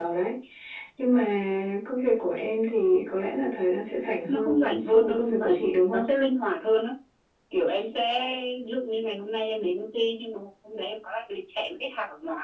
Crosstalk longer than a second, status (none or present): present